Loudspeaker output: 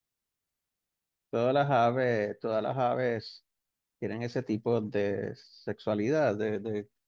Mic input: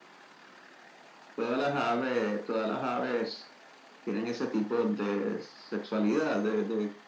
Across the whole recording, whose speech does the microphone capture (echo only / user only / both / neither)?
echo only